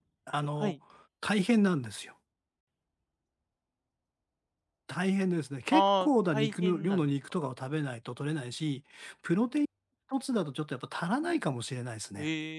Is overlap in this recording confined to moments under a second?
No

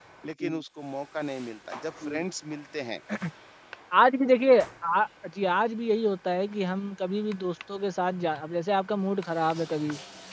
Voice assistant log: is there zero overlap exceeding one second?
Yes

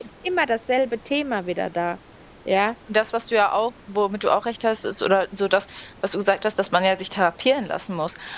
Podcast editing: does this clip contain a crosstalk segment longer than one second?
No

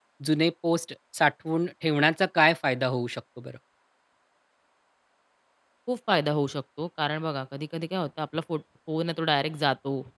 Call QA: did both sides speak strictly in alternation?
Yes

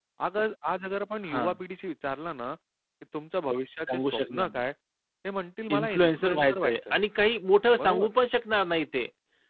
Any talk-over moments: Yes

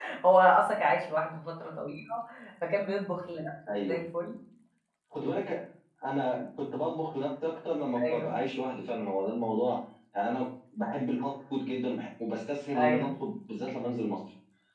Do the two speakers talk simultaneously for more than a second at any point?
No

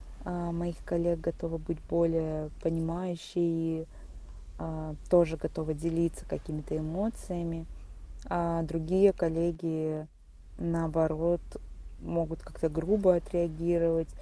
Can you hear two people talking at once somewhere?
No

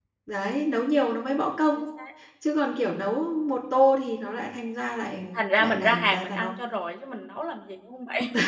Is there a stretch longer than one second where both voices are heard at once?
Yes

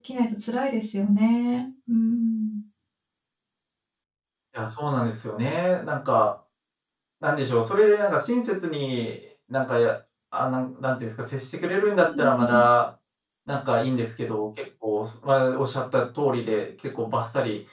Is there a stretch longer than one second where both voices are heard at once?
No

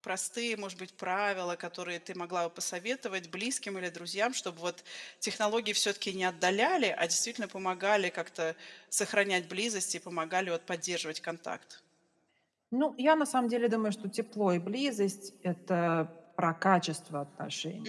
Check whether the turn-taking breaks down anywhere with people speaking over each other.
No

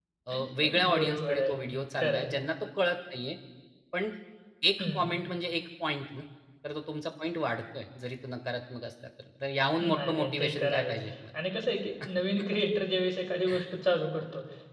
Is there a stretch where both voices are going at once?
Yes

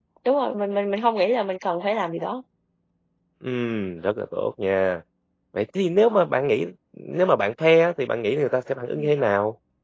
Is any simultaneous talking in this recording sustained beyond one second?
No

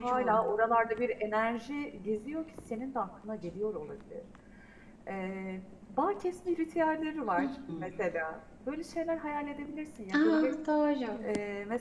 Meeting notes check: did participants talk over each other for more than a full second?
No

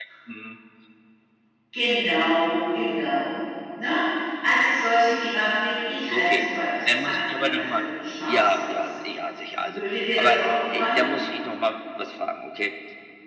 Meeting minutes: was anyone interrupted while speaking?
Yes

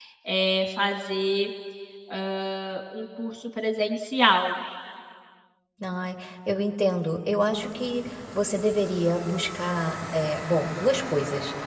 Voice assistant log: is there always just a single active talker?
Yes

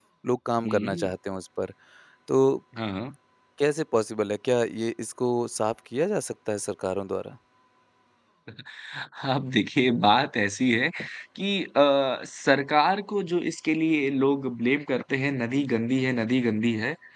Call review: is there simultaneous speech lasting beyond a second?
No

